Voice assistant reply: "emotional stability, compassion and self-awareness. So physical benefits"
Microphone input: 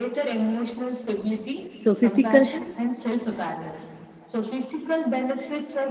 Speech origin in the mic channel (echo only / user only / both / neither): both